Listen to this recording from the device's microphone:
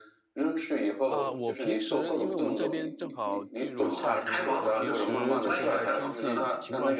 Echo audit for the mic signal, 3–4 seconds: both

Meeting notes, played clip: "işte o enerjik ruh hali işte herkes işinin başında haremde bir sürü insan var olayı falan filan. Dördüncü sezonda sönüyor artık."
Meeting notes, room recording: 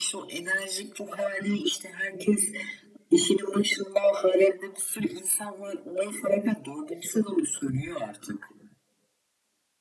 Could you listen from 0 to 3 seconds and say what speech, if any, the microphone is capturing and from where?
echo only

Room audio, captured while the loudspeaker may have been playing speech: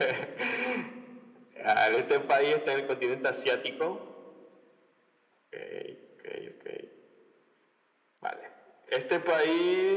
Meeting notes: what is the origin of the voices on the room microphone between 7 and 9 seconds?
echo only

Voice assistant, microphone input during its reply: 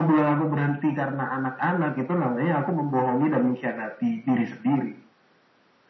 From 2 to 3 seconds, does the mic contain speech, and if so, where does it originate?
echo only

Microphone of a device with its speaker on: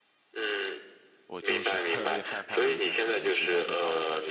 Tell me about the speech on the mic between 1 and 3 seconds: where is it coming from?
both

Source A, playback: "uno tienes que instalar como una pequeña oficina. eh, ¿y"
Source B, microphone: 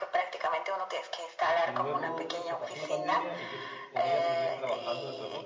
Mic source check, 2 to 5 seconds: both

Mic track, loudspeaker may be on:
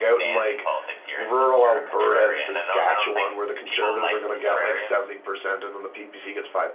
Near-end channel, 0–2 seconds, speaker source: both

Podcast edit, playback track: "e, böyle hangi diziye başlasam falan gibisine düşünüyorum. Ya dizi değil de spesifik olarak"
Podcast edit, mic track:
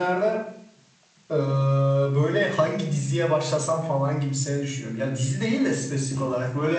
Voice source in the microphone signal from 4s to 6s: echo only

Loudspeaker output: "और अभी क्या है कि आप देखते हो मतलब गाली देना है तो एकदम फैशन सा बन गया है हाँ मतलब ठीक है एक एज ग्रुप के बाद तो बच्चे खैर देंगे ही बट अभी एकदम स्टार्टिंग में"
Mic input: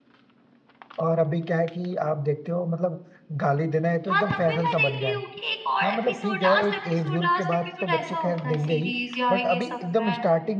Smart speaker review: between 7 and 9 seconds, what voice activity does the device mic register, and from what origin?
both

